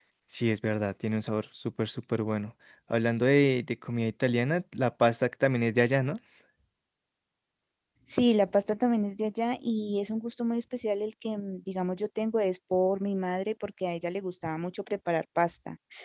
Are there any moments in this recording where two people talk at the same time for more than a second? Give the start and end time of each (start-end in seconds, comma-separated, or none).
none